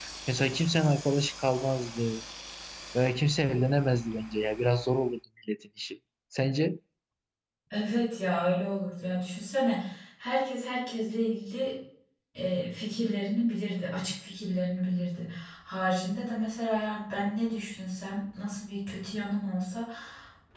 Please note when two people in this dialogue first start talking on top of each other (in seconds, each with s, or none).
none